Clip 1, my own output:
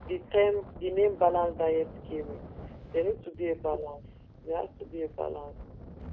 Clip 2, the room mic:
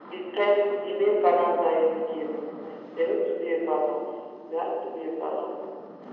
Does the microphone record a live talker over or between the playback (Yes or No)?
No